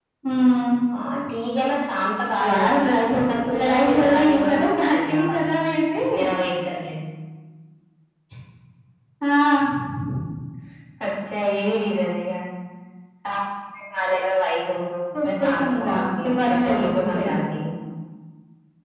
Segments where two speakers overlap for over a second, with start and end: 2.4-5.4, 15.2-17.5

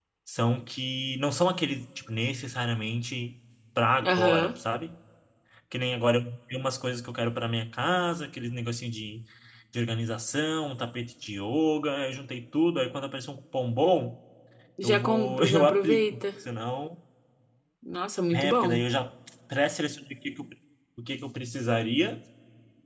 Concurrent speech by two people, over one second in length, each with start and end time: 14.8-16.2

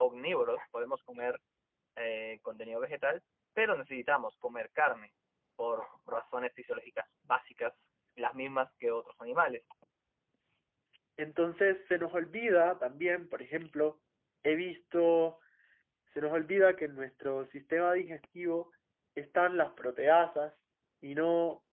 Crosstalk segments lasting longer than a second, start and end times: none

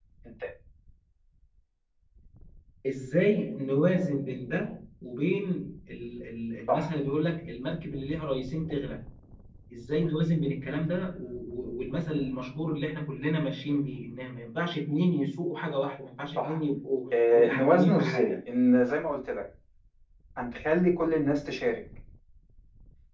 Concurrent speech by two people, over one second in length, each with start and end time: 17.1-18.4

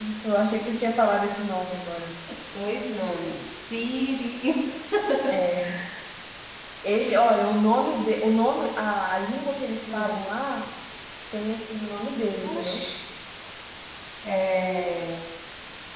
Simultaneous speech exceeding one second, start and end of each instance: none

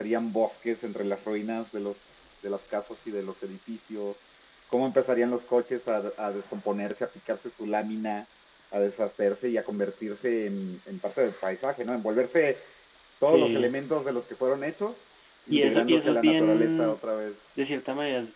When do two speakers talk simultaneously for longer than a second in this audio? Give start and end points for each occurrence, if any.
15.5-17.0

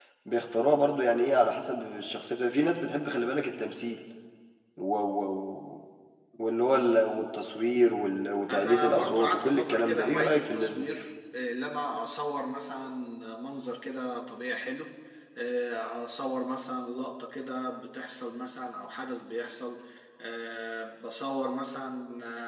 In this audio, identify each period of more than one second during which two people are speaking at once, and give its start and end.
8.5-10.9

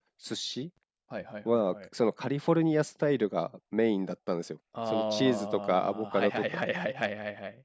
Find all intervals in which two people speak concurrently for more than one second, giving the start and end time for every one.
4.9-6.4

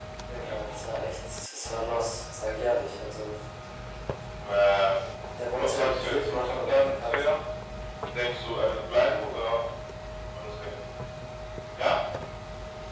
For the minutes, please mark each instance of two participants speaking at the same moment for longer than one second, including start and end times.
5.5-7.1

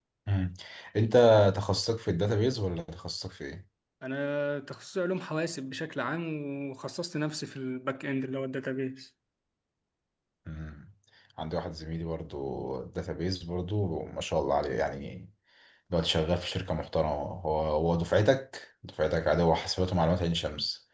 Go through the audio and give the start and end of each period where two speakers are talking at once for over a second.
none

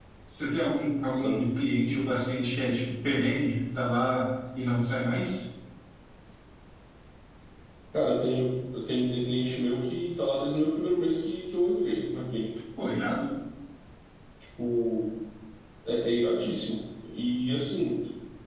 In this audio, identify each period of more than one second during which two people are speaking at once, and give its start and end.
none

